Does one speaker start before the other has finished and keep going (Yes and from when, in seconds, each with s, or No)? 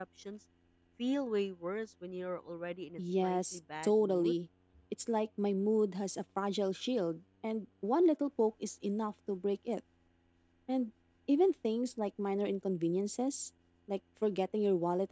Yes, from 3.0 s